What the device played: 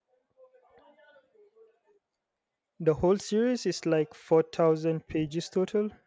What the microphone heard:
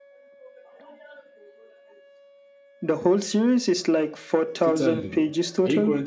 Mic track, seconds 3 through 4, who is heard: echo only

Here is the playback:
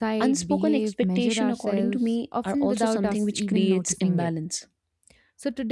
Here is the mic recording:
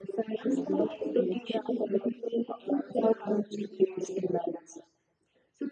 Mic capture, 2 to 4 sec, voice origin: echo only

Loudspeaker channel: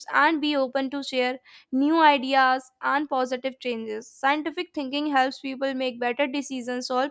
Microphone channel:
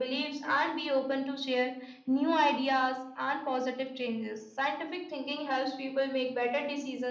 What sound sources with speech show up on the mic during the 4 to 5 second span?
echo only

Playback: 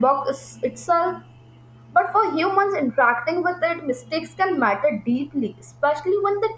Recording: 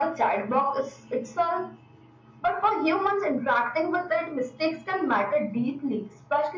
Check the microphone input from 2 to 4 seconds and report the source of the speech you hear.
echo only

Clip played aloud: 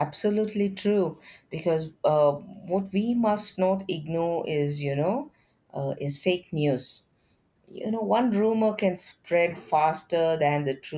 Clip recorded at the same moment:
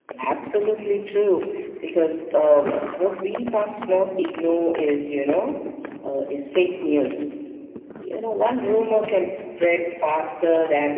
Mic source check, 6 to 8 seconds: echo only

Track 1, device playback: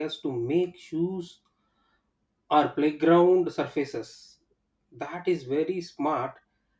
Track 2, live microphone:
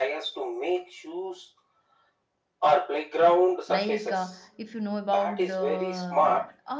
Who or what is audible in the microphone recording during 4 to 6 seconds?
both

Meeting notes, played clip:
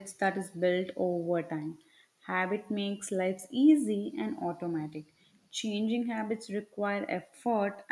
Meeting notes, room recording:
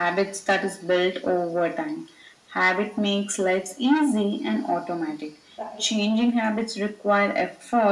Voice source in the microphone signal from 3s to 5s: echo only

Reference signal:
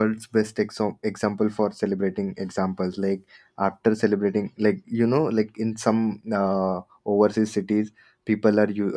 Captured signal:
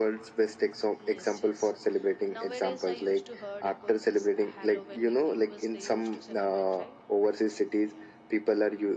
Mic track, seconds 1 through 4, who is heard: both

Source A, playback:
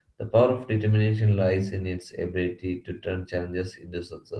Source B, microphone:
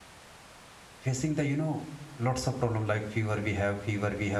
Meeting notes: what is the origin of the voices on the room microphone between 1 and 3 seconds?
user only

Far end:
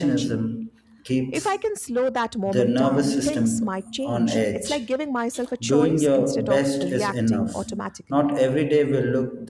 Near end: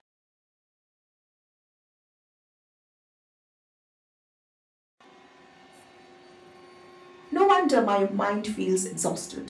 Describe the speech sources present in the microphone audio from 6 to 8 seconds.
user only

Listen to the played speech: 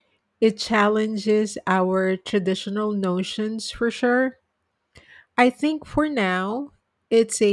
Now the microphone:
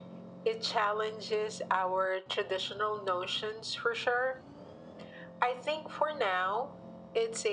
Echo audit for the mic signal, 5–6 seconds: echo only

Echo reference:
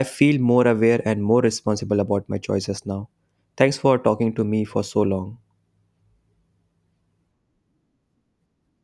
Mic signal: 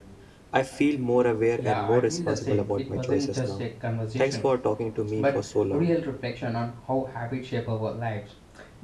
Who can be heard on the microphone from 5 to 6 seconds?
both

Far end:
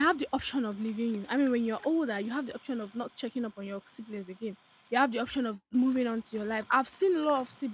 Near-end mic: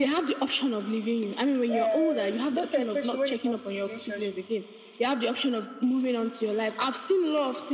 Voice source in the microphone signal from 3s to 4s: both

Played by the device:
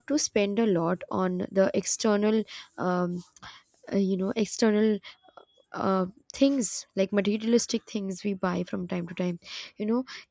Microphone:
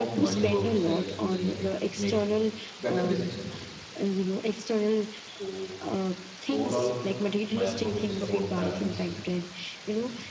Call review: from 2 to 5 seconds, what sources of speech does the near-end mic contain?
both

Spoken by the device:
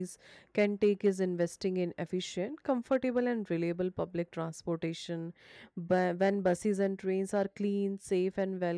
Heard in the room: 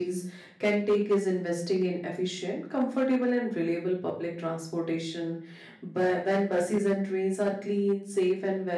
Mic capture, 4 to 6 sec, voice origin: echo only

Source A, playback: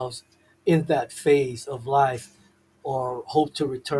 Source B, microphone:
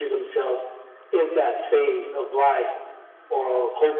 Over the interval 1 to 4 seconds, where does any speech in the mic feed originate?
echo only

